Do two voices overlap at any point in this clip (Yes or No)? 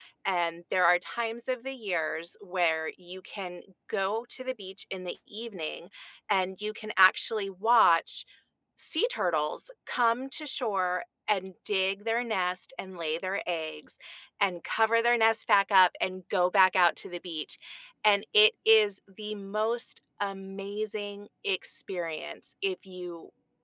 No